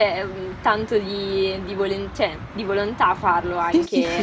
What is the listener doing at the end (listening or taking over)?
taking over